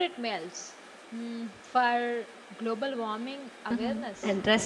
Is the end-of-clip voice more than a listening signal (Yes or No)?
Yes